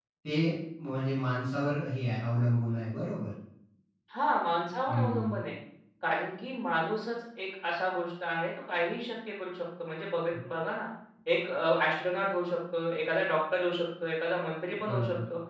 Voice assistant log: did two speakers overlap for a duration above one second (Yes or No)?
No